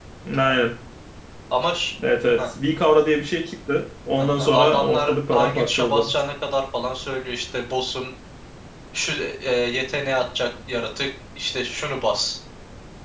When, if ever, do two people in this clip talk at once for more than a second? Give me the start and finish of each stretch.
4.2-6.1

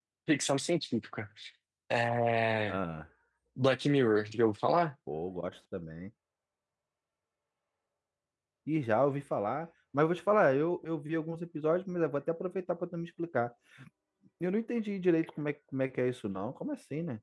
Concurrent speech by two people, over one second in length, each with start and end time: none

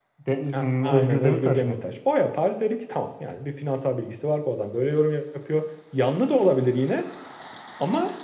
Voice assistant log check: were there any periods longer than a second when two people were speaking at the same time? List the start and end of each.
0.5-1.8

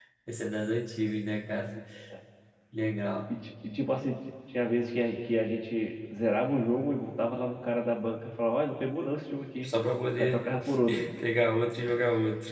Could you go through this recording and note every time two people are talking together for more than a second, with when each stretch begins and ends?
none

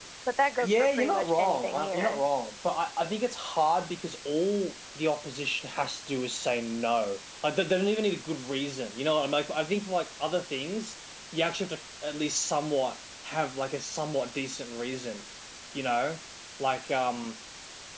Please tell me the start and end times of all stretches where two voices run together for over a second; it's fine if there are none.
0.6-2.2

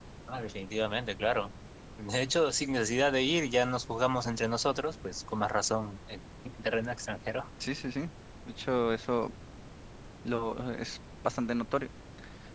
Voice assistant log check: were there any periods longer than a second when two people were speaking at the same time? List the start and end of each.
none

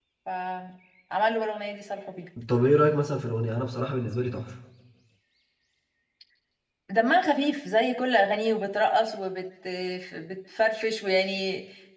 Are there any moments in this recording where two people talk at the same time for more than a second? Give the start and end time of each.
none

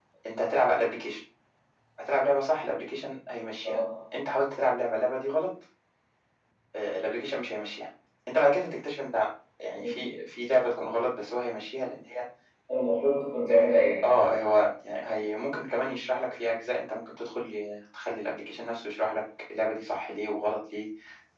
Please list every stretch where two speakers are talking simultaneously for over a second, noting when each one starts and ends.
none

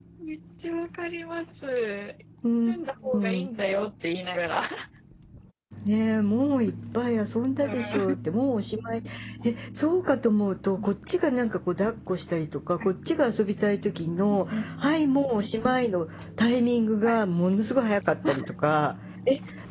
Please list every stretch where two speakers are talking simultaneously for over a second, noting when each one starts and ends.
none

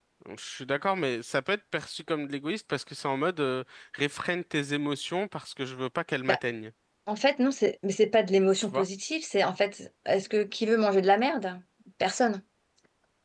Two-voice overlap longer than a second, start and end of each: none

